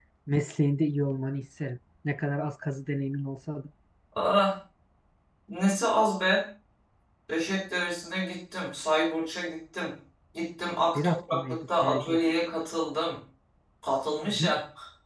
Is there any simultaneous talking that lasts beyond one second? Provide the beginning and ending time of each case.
11.0-12.2

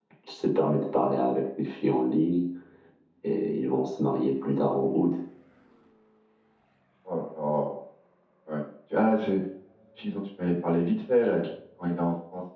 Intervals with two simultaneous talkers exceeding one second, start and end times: none

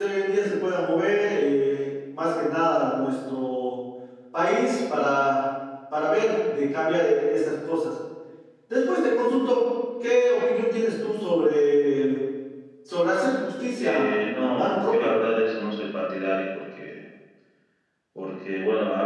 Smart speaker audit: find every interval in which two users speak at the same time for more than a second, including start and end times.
13.8-15.1

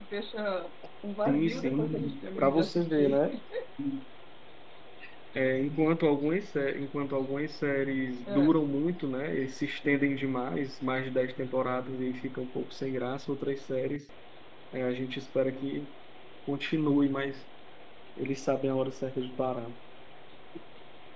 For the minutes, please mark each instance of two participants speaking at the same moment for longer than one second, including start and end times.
1.2-3.2

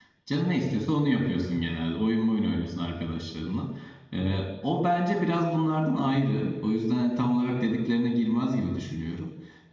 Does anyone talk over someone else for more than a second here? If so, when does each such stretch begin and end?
none

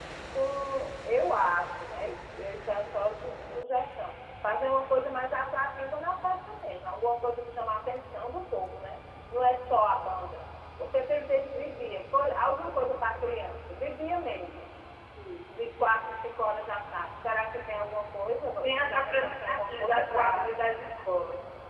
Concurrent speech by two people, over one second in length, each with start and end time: 18.6-20.4

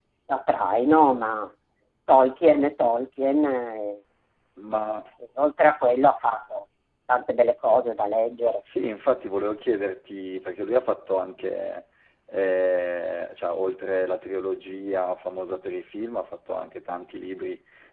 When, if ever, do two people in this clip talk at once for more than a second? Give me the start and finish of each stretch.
none

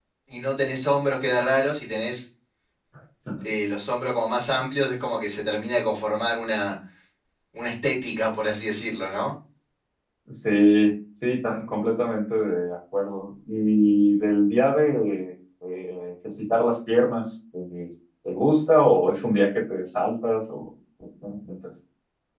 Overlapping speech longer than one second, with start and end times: none

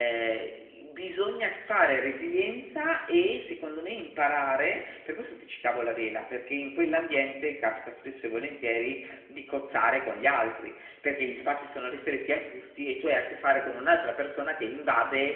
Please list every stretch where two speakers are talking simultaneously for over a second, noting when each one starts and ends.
none

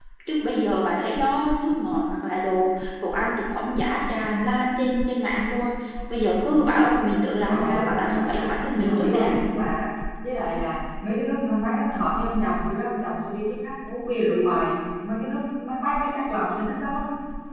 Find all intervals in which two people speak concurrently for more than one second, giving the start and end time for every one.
7.3-9.3

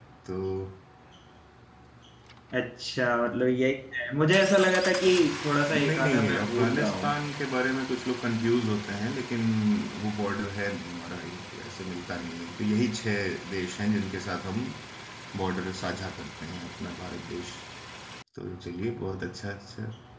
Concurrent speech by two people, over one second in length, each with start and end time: 5.7-7.1

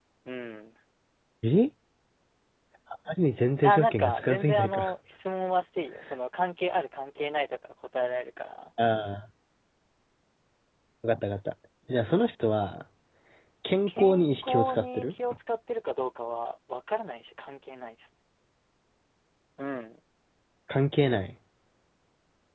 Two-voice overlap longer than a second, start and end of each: 3.6-4.9, 13.9-15.1

